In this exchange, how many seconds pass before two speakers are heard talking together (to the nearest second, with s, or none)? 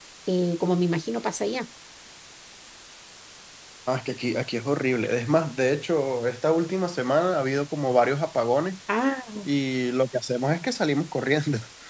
none